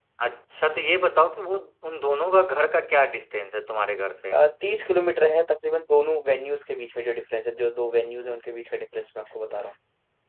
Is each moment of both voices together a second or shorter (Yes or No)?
Yes